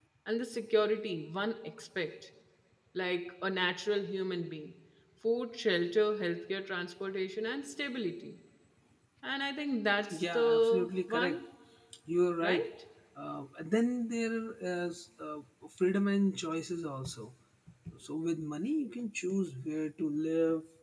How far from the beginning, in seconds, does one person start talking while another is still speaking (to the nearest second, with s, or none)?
10 s